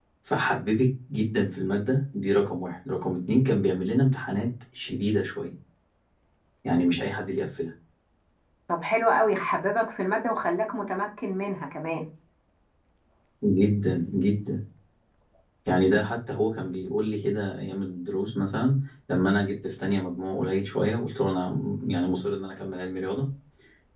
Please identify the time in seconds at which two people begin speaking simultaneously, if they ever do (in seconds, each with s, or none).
none